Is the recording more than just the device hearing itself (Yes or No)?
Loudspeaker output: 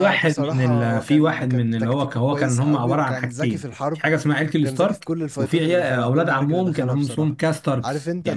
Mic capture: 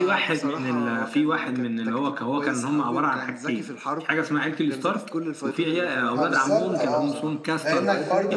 Yes